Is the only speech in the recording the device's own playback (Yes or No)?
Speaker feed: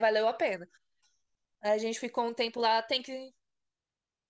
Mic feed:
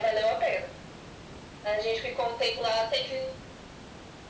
Yes